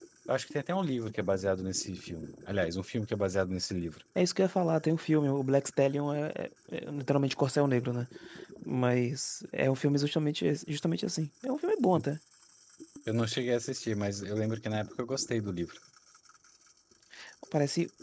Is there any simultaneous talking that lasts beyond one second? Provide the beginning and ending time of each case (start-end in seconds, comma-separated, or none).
none